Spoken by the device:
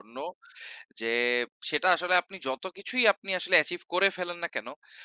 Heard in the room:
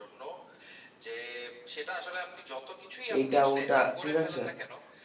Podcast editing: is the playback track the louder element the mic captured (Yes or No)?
No